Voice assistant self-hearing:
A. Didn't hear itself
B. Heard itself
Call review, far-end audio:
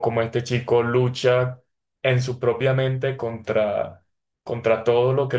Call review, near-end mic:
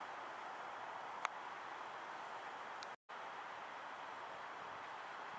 A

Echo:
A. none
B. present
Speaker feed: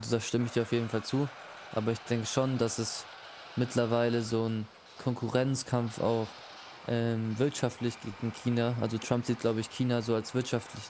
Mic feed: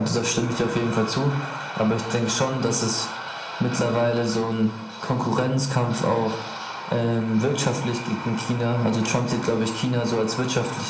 B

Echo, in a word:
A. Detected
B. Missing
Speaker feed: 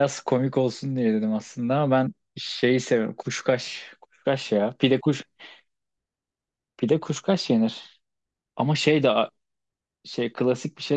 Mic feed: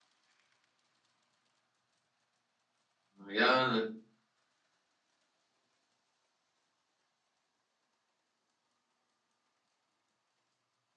B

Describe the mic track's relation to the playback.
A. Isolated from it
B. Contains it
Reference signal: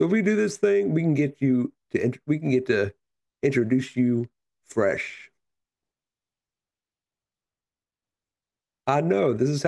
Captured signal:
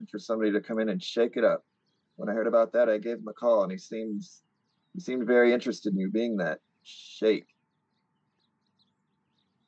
A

